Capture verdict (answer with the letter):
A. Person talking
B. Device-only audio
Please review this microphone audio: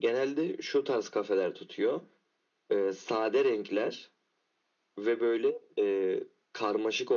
B